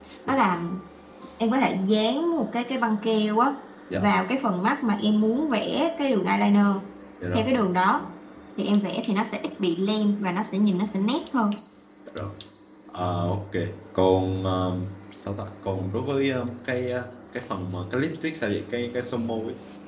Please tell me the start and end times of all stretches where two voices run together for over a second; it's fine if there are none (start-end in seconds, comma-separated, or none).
none